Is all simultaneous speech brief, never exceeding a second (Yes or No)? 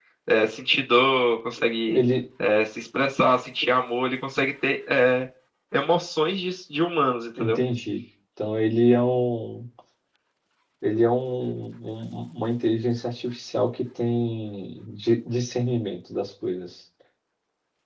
Yes